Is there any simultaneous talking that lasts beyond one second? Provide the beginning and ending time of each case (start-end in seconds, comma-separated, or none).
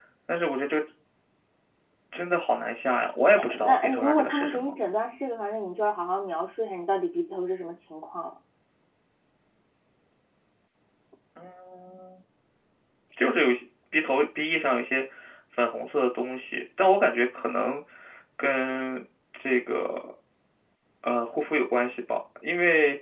3.4-4.7